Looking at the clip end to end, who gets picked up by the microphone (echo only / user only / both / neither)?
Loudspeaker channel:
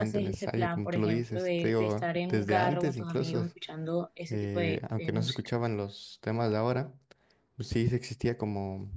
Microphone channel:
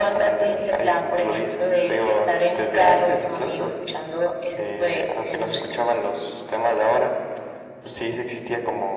echo only